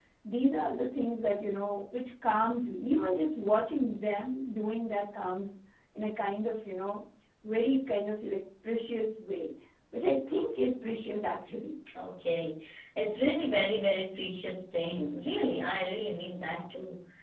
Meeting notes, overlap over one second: none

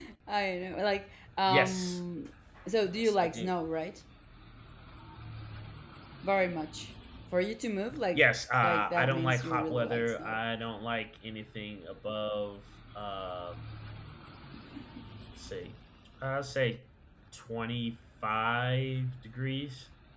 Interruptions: present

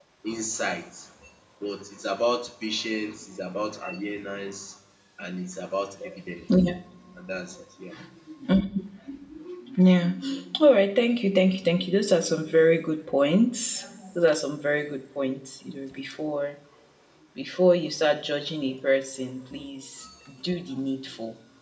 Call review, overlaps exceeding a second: none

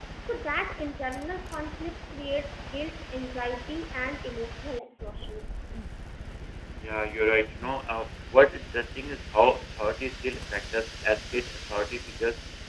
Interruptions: none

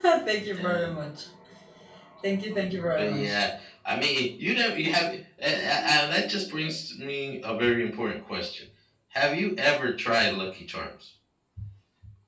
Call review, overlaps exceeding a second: none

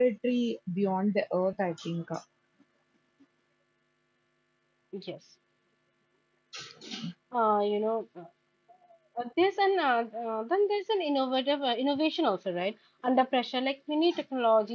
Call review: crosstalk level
none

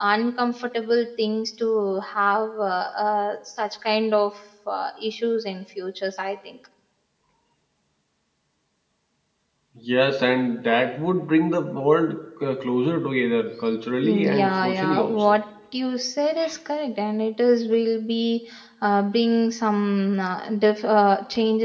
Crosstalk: present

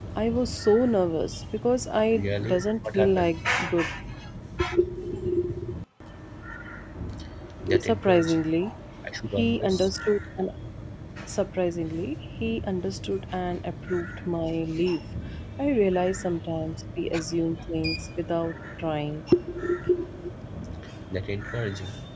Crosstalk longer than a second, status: present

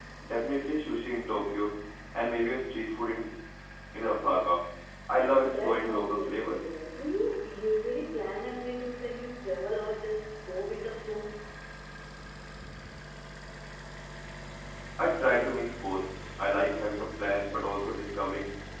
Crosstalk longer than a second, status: present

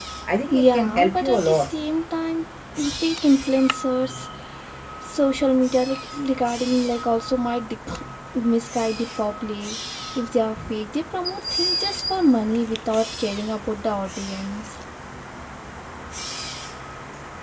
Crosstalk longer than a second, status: present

